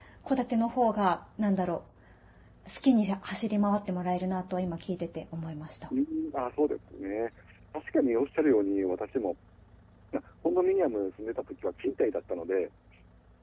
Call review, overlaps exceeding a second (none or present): none